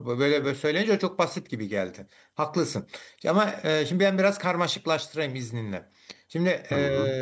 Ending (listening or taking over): listening